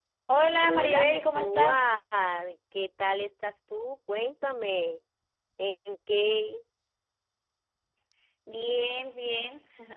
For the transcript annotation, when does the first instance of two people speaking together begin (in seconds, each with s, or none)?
0.5 s